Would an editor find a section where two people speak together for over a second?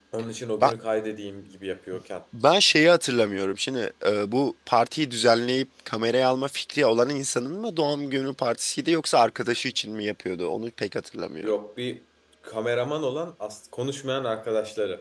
No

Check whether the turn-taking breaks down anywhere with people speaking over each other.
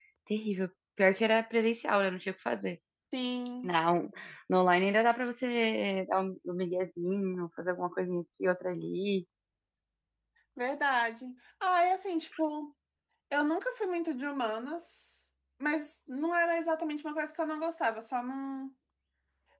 No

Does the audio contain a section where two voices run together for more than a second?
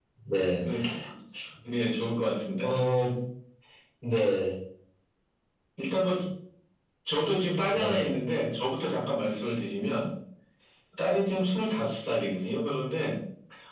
No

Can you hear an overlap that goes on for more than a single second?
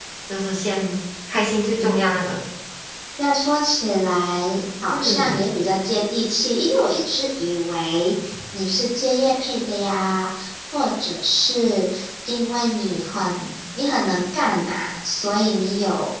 No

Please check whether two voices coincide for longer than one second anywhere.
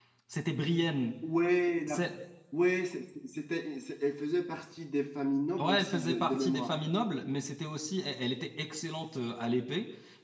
Yes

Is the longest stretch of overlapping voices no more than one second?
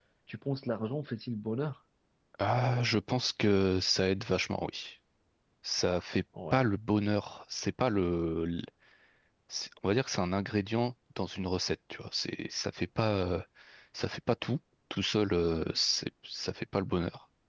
Yes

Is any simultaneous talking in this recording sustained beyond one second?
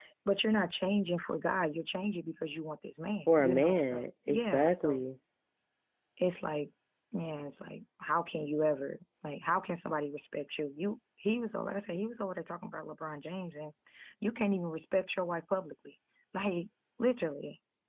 Yes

